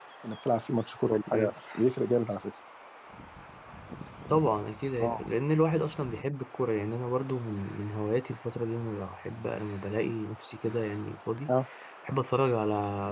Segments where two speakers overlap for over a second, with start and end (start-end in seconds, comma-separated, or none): none